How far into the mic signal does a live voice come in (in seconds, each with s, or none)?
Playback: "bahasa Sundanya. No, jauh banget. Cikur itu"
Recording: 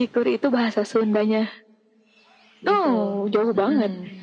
2.7 s